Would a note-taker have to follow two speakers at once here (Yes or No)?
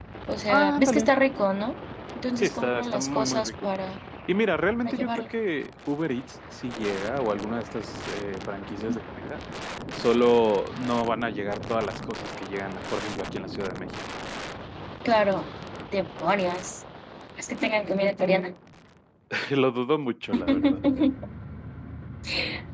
Yes